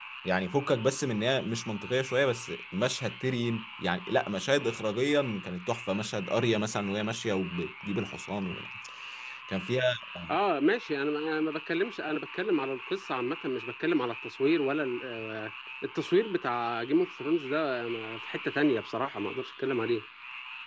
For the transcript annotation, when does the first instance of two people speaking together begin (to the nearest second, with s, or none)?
none